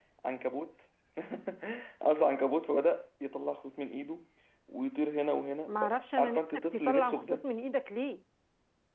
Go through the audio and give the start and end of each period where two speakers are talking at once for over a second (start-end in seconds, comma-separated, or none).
5.7-7.2